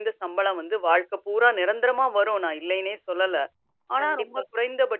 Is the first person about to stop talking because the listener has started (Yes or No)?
No